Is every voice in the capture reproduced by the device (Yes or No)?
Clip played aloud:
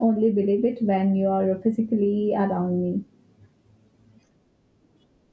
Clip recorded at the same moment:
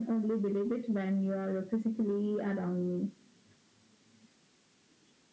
Yes